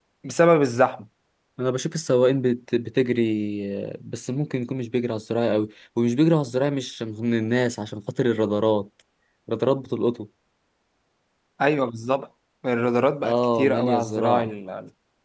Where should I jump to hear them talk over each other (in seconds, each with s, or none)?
13.2 s